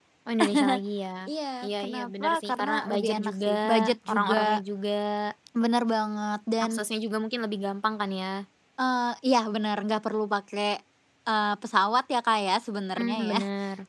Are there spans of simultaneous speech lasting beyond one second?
Yes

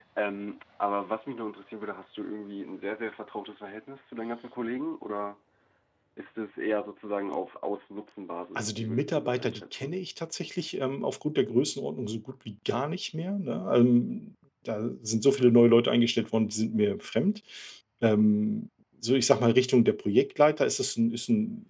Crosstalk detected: Yes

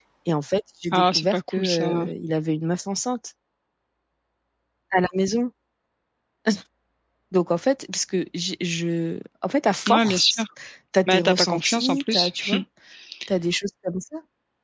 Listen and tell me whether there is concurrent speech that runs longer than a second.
Yes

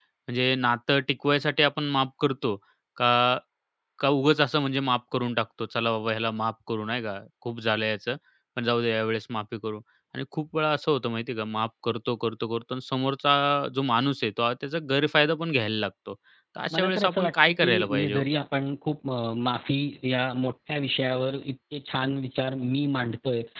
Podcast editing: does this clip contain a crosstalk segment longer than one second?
Yes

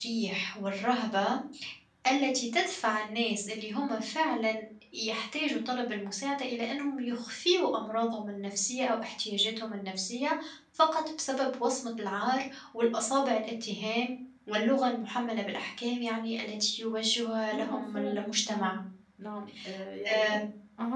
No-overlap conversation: No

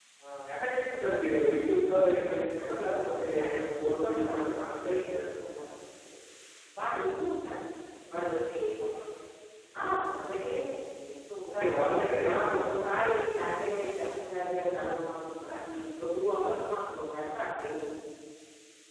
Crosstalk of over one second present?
Yes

